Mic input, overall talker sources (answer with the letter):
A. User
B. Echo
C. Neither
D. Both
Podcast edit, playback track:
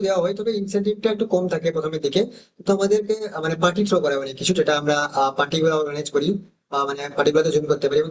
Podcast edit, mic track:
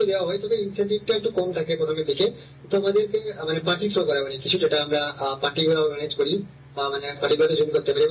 B